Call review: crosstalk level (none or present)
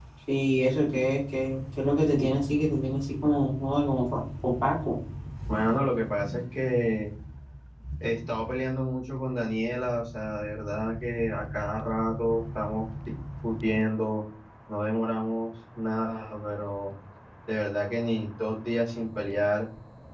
none